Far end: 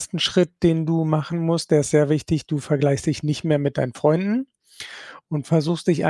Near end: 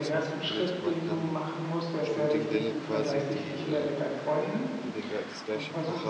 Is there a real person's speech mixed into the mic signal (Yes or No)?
Yes